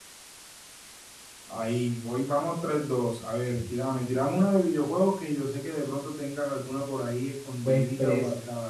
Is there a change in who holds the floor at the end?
Yes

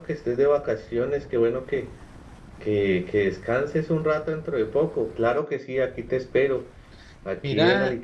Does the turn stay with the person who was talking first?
Yes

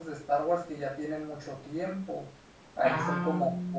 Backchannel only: Yes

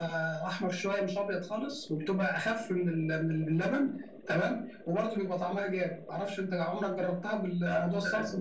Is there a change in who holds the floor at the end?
Yes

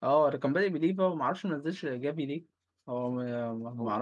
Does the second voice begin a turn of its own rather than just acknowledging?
Yes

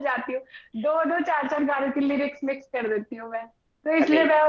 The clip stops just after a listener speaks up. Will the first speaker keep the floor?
Yes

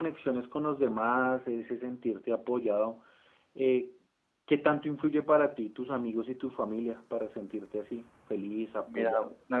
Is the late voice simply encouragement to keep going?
No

